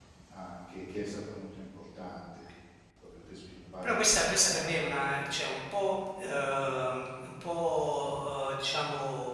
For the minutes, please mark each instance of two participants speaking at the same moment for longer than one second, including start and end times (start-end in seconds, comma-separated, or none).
3.8-5.0